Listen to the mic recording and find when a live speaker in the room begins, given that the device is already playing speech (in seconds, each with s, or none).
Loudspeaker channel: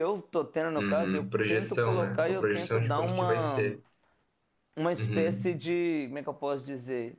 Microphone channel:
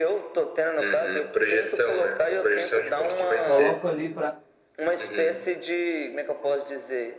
3.4 s